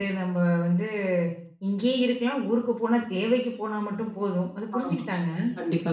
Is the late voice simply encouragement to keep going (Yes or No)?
No